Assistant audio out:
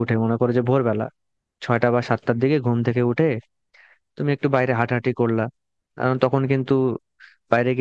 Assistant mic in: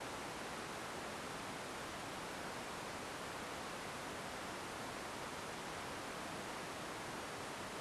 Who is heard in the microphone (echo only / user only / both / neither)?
neither